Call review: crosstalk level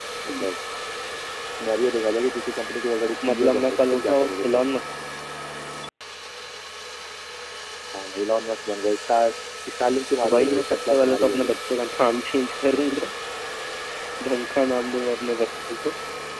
present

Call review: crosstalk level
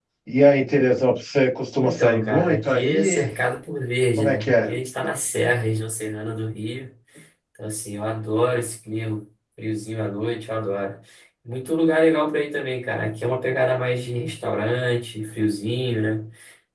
present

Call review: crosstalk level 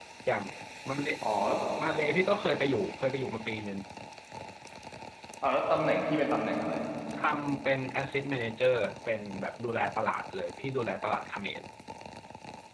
none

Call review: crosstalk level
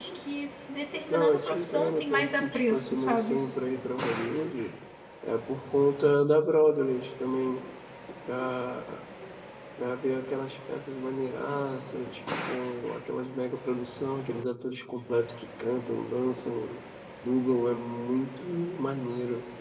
present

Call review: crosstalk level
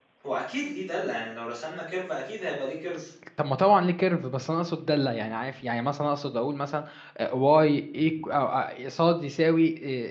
none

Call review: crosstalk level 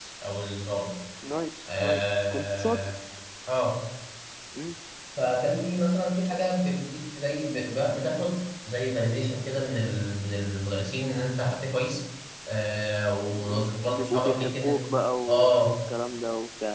present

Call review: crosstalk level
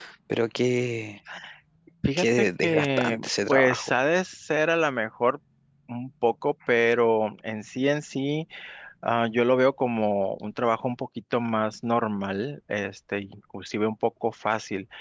present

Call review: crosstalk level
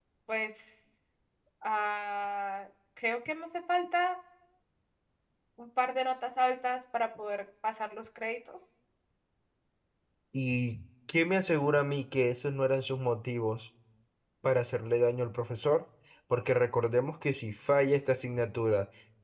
none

